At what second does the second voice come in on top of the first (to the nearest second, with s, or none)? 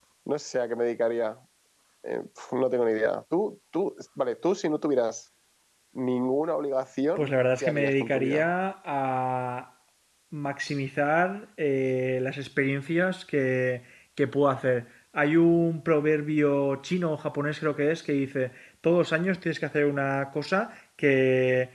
7 s